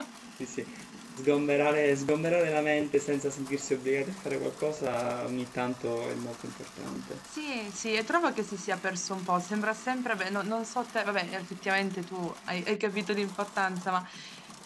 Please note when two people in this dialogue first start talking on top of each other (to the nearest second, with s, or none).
none